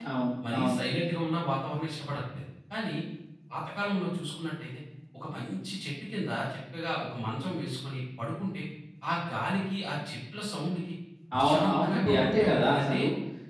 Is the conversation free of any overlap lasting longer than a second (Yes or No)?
No